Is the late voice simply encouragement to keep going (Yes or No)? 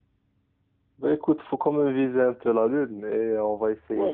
No